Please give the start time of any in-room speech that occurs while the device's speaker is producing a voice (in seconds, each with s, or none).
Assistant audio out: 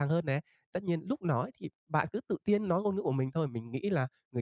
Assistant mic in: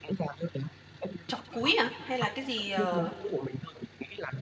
1.3 s